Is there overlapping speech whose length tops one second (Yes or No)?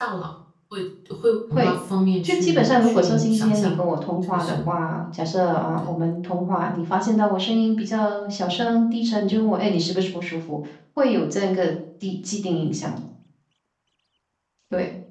Yes